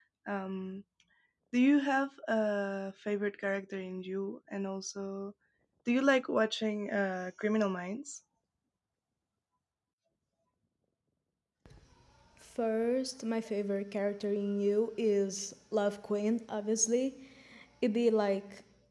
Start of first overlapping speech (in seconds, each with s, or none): none